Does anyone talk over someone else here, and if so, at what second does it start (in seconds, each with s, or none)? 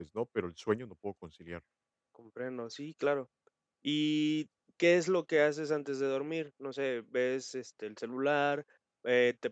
none